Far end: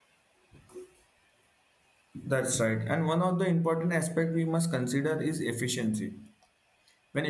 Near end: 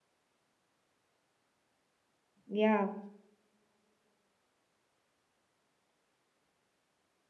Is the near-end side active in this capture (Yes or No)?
Yes